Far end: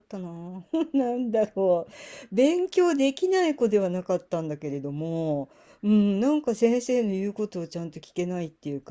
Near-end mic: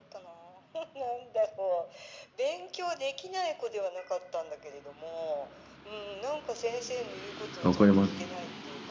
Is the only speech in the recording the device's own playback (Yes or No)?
No